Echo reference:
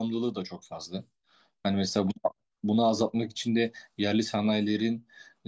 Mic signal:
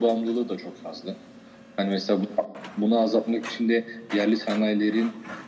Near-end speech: none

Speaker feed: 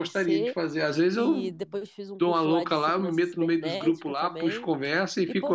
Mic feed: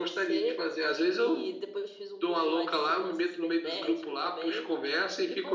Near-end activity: none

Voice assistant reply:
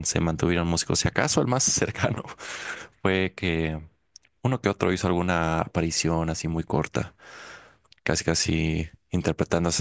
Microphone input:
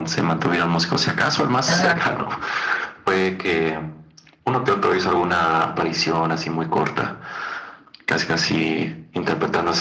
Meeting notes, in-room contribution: present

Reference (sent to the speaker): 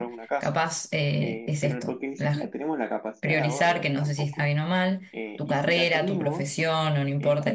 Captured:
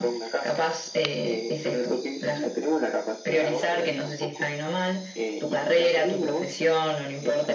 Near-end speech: none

